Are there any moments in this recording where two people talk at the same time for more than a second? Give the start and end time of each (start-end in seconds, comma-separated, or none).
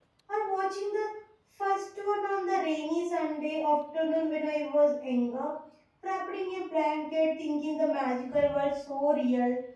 none